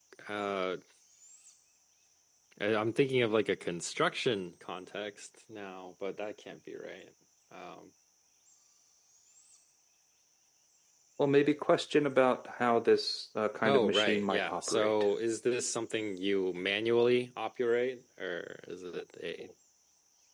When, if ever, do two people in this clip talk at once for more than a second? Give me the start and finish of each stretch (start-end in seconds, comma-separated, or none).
13.6-14.9